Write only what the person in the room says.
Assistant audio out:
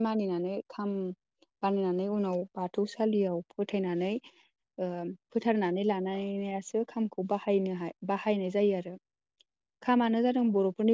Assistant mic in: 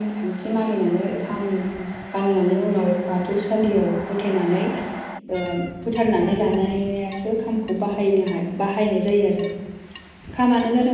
none

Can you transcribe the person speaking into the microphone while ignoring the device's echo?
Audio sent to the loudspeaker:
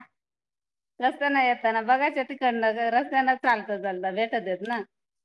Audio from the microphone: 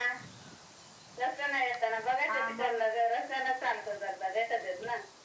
हा मग

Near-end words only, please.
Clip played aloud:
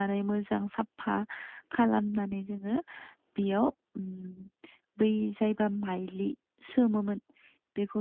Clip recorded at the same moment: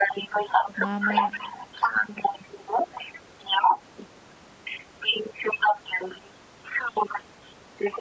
मा मा

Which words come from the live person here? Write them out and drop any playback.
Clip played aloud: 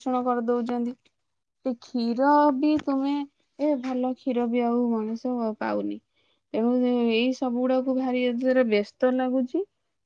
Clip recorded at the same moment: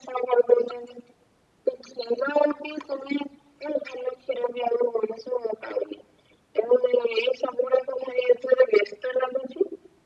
none

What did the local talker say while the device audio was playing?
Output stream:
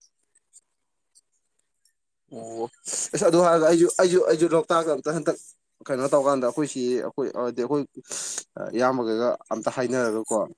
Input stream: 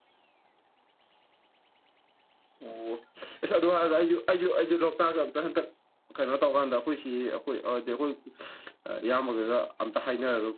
none

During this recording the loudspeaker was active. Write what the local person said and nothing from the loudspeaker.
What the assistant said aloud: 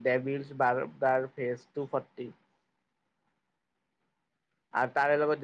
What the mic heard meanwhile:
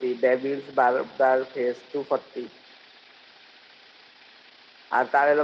none

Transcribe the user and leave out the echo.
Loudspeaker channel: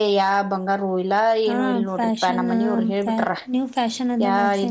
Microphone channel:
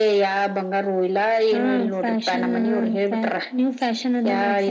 none

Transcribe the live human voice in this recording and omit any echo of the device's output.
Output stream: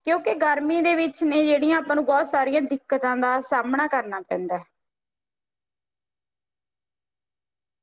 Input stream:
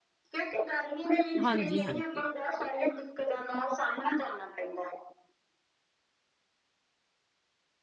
ਹਾਂਜੀ ਹਾਂਜੀ

